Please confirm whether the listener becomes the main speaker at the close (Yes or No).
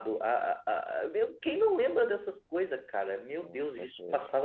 No